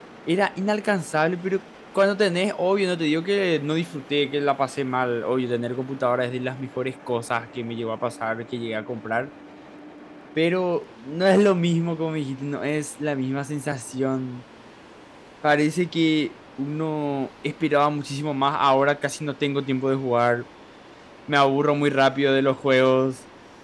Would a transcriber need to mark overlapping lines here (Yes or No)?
No